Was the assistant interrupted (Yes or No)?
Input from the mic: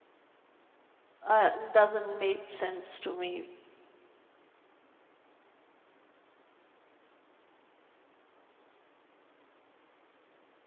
Yes